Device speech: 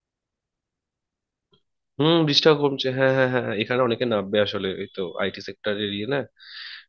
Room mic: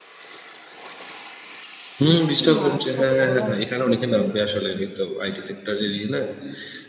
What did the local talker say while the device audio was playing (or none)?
কি মারাত্মক গরম